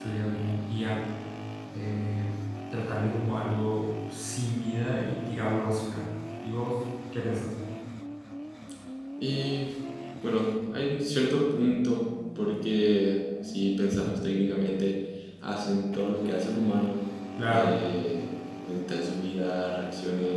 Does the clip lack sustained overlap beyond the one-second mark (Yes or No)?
Yes